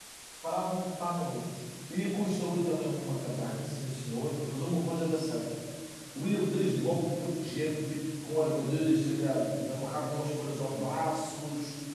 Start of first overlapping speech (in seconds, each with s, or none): none